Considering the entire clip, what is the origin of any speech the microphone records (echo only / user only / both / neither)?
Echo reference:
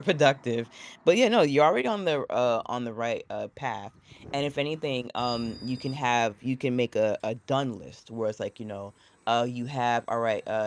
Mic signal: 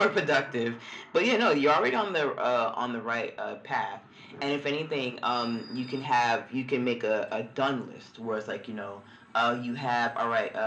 echo only